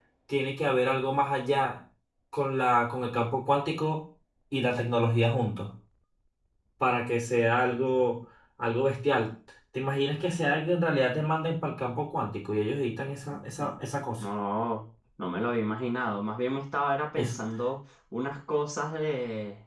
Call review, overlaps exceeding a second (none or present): none